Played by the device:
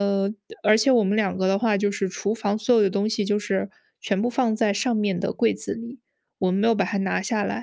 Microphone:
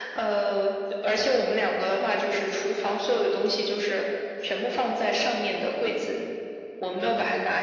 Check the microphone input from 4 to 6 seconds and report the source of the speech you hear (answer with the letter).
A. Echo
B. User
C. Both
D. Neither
A